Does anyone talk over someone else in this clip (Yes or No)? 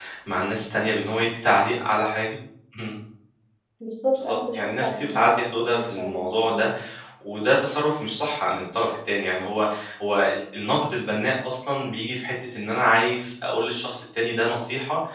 Yes